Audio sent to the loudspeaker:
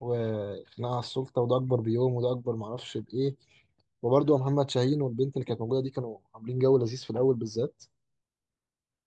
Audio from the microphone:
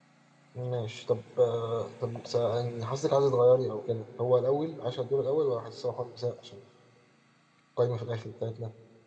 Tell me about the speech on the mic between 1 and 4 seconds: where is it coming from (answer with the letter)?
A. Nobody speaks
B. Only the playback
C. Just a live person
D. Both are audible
C